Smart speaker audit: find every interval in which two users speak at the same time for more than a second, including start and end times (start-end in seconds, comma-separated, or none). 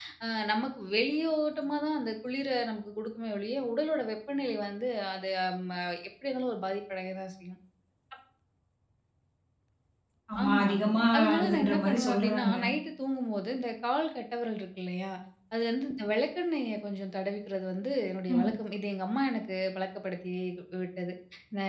11.2-12.5